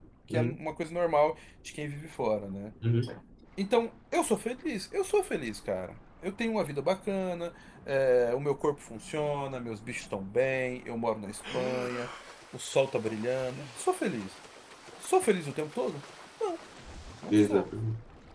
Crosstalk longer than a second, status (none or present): none